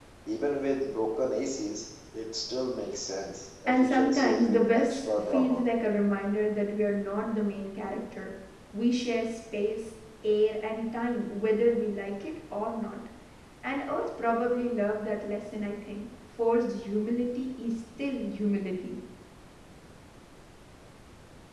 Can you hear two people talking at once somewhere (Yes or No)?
Yes